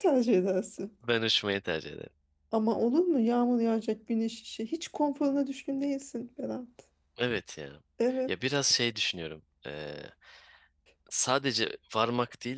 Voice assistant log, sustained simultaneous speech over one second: none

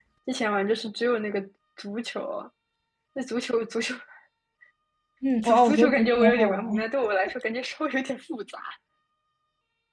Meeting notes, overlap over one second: present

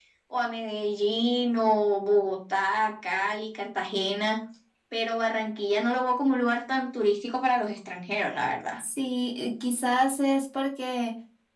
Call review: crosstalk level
none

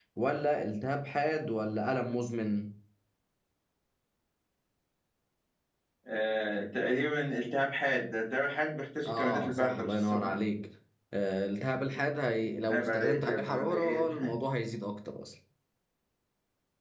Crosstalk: present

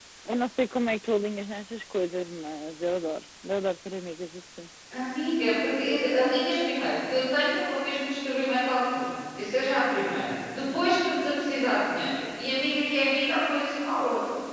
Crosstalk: none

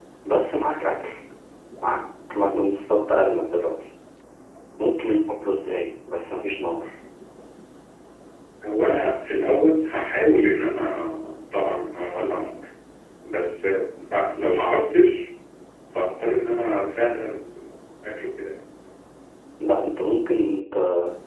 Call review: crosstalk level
none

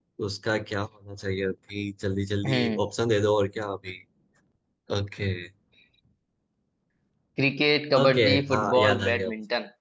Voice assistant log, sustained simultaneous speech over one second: present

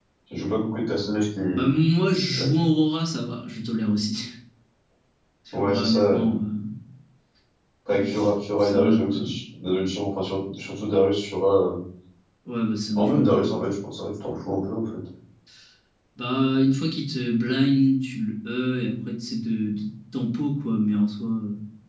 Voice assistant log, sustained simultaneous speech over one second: present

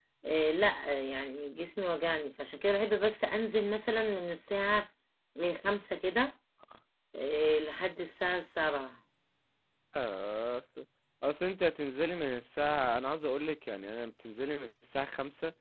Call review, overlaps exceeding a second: none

